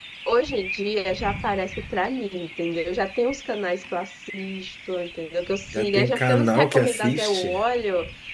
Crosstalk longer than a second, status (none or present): present